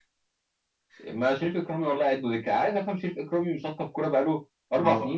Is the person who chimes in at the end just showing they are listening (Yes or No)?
No